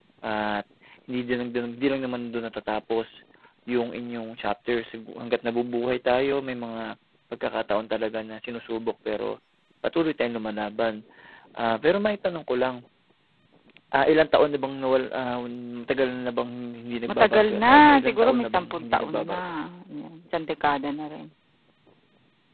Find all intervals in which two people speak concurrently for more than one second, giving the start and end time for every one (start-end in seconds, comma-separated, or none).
17.1-19.4